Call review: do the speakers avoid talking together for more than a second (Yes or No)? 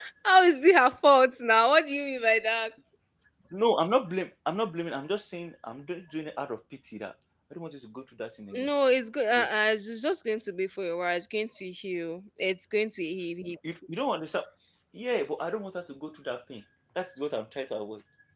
Yes